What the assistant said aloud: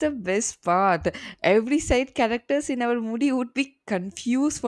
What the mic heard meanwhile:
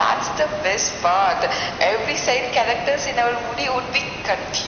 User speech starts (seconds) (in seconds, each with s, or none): none